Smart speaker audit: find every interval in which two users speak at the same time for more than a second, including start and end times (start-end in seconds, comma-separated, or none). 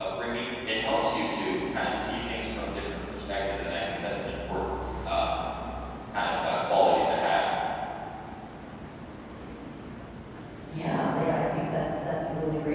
none